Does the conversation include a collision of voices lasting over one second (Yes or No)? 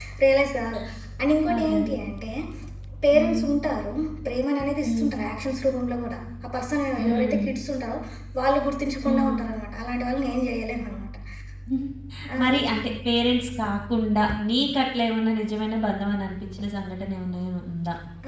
No